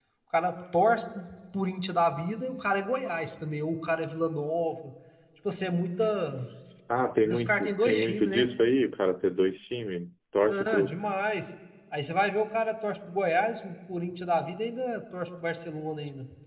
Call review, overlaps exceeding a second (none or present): present